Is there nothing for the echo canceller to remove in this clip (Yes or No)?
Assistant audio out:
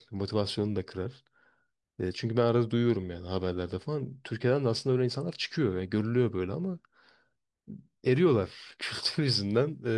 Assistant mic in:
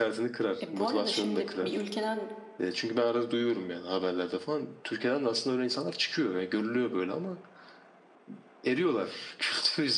No